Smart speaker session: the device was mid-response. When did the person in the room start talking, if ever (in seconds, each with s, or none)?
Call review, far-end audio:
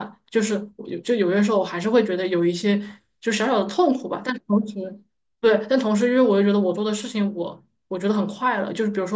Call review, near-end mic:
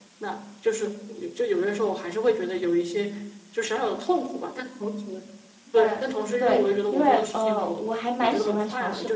5.7 s